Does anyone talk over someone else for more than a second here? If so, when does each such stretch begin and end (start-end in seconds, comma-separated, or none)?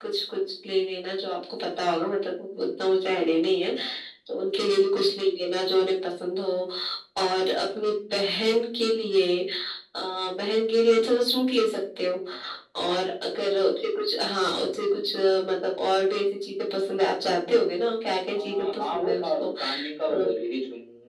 18.4-20.3